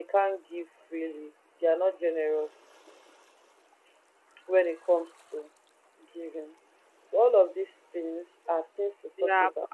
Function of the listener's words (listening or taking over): taking over